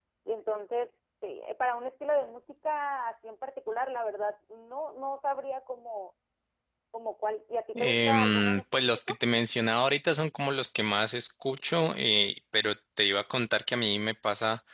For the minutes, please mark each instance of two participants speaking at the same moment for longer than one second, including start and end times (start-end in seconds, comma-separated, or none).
7.8-9.2